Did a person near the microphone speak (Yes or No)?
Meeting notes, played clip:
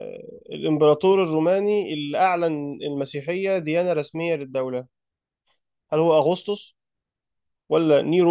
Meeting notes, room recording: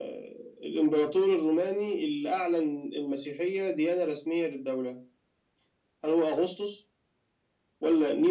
No